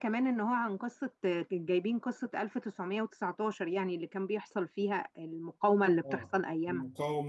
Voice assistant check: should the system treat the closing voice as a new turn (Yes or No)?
Yes